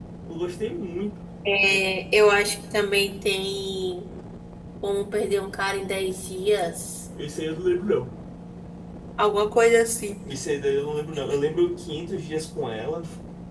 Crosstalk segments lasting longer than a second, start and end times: none

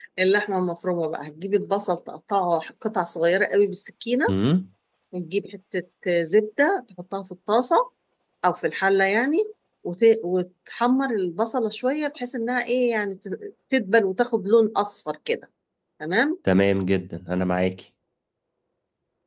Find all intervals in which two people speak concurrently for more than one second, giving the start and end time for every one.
none

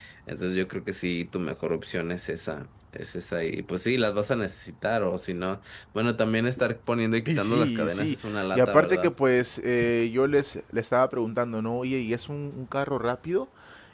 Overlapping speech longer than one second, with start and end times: 7.3-9.1

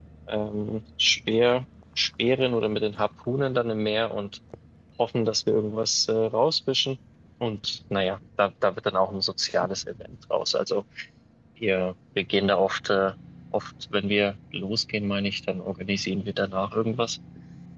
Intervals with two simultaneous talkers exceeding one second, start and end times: none

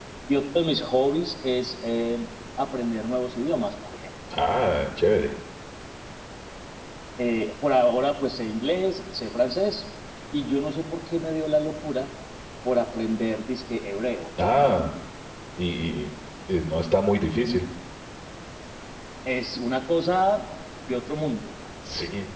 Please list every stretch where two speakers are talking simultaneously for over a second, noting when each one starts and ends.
none

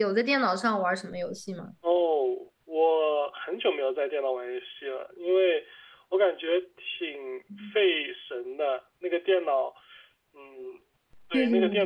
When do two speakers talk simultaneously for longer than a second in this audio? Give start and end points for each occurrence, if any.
none

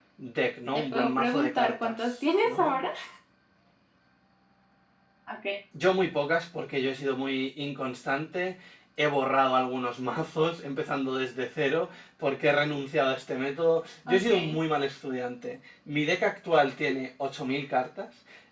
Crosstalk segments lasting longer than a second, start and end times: 0.7-2.8

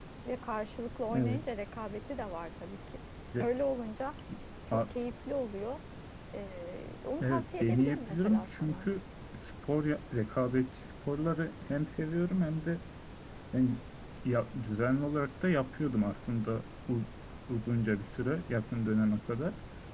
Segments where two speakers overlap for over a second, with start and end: 7.2-8.9

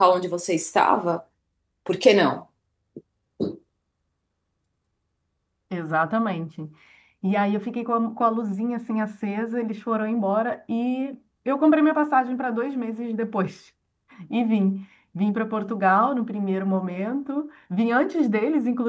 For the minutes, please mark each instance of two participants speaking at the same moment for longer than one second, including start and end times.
none

